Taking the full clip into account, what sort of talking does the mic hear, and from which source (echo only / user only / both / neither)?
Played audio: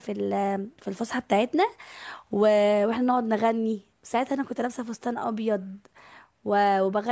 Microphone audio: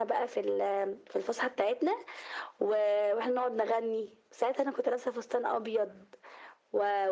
echo only